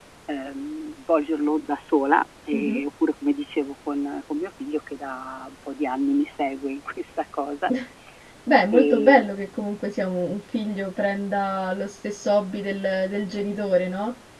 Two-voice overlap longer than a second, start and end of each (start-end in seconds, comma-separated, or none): none